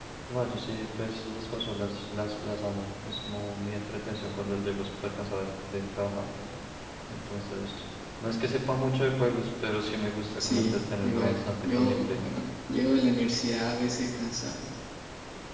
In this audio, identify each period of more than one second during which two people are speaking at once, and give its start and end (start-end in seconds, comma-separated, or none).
10.4-12.2